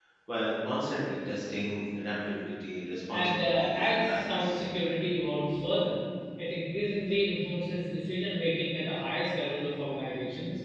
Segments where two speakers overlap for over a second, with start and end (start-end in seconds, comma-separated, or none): 3.1-4.6